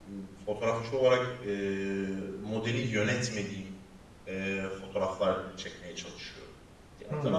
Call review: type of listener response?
listening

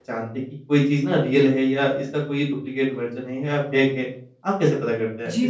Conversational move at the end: taking over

